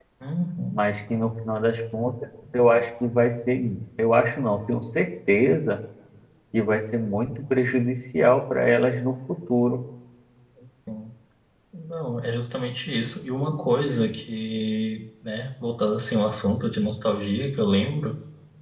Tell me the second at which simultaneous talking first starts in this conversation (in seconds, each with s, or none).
none